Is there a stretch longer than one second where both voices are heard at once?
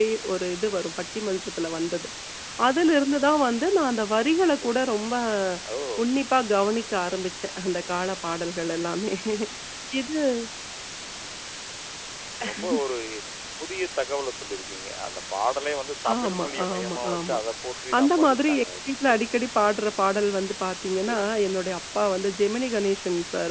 Yes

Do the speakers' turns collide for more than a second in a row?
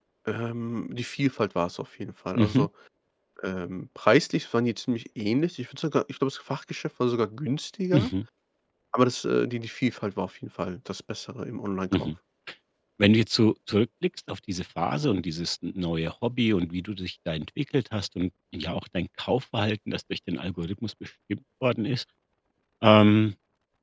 No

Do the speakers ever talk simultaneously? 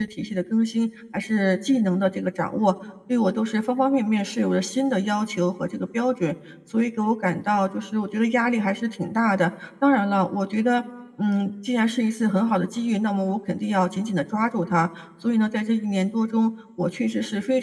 No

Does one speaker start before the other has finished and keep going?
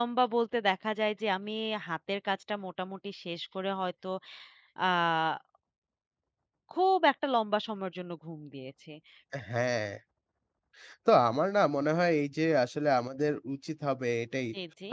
No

